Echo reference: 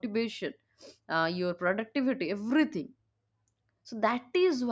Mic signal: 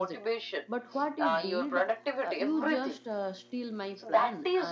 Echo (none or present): present